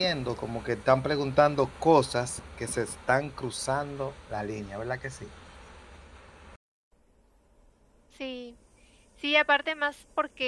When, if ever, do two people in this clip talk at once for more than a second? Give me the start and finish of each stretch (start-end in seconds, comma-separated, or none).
none